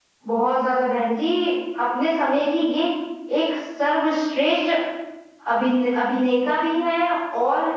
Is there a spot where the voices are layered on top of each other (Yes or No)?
No